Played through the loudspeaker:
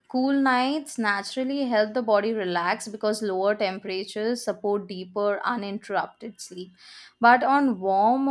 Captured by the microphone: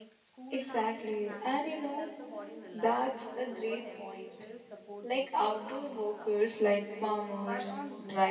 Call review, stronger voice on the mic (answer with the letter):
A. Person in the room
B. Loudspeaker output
A